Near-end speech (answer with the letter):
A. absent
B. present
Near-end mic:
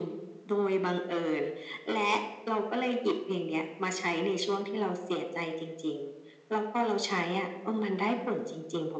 A